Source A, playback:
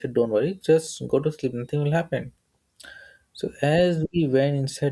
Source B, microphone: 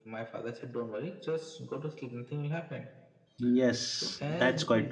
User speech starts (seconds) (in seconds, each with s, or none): 3.4 s